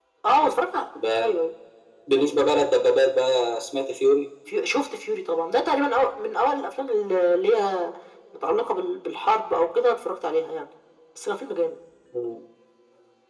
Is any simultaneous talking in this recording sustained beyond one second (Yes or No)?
No